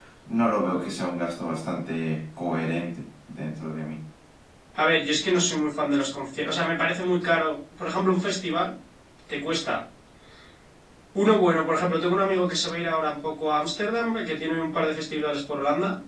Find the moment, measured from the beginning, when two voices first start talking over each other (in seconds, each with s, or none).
none